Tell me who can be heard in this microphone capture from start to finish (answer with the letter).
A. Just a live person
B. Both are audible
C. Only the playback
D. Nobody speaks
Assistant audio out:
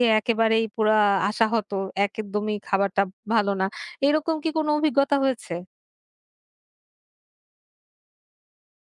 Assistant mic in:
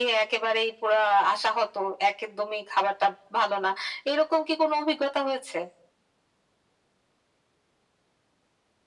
C